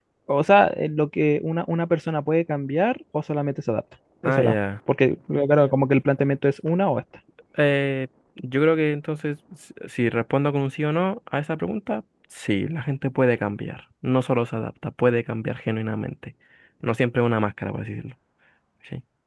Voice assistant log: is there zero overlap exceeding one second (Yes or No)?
Yes